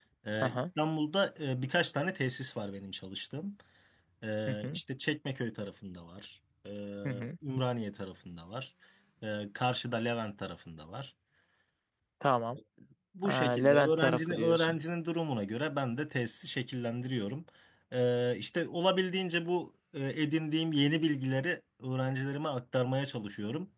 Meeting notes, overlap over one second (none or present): present